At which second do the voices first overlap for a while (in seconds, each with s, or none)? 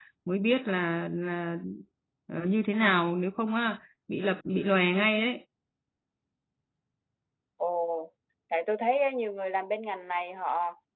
none